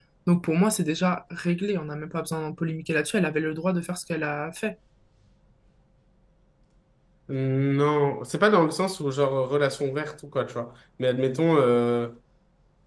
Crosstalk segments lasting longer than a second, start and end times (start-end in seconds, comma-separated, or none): none